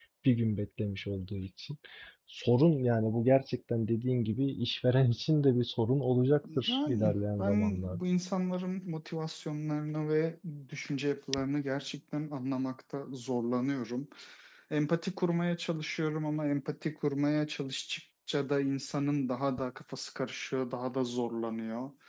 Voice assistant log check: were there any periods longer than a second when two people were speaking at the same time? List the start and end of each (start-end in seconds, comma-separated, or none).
6.4-8.0